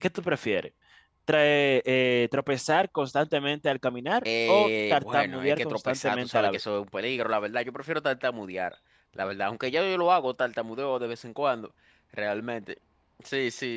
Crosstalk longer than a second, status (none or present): present